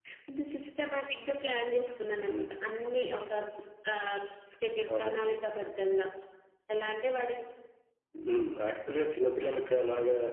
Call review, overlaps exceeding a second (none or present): none